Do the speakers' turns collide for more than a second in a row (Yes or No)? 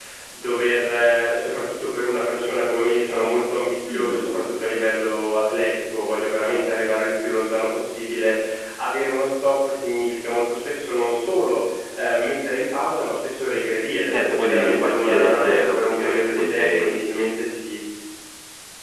Yes